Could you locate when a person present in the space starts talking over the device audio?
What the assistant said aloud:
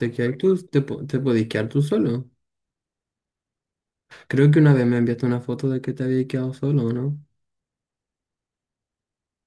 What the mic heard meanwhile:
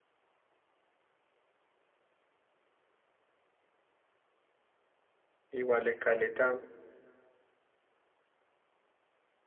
5.5 s

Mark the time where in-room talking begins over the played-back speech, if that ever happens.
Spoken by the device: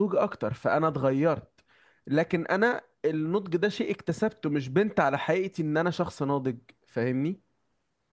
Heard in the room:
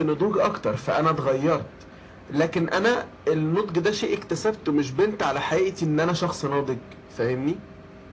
none

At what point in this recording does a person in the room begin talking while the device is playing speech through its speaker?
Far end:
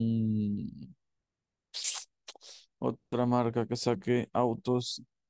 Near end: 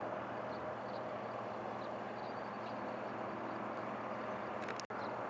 none

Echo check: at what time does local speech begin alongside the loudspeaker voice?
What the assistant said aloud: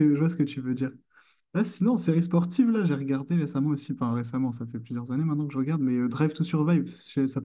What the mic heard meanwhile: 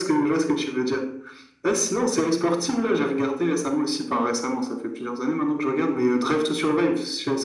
none

